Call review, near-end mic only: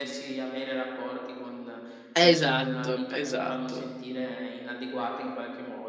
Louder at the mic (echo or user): user